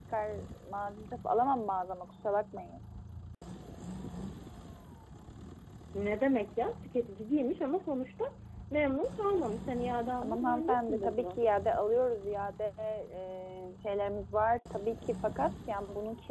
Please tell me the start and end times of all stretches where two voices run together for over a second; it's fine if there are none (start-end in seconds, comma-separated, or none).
10.2-11.4